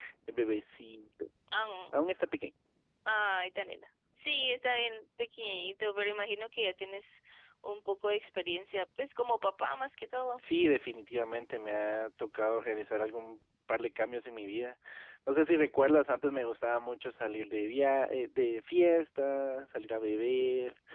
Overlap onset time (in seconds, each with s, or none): none